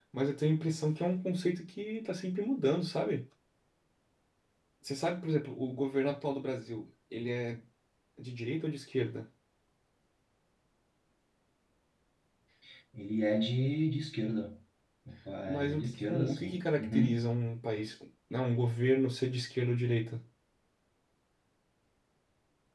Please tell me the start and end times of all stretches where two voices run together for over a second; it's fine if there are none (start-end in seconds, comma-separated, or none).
15.5-17.3